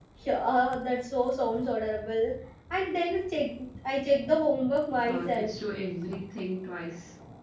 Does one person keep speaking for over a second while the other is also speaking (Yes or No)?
No